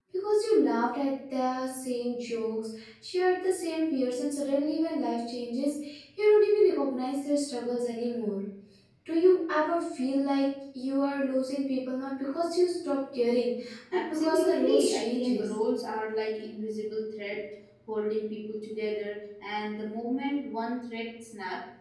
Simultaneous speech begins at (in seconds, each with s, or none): 13.9 s